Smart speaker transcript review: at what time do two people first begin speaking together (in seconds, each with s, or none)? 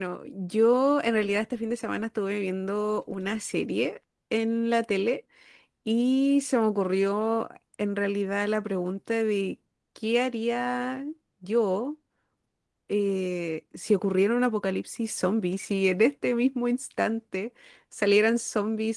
none